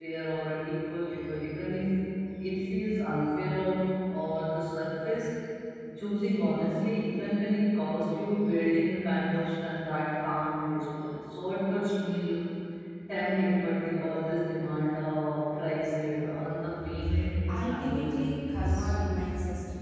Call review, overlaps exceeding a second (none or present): present